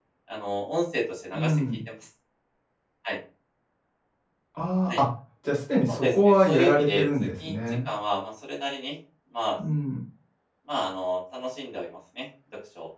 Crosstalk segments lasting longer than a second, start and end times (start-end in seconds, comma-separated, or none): 5.9-7.6